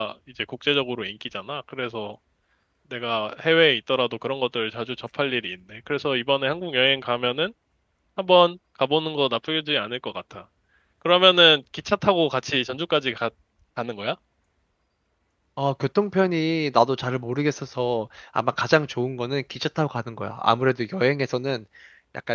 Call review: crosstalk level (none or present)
none